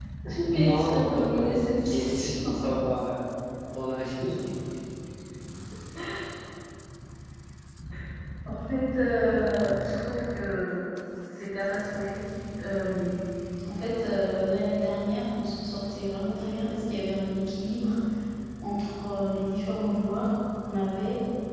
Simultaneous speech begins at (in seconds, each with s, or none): 0.5 s